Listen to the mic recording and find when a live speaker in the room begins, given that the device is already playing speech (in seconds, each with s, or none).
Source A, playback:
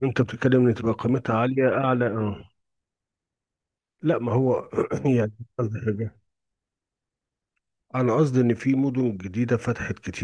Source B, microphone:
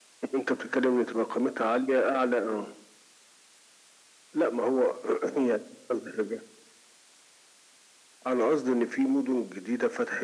none